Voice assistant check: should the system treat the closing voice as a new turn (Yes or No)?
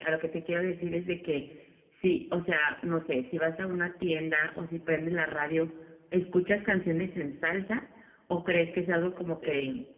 No